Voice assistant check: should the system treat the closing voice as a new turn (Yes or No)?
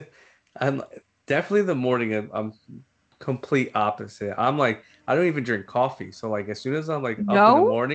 No